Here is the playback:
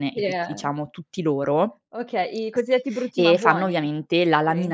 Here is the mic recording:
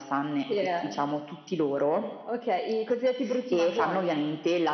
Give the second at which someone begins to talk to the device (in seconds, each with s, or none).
none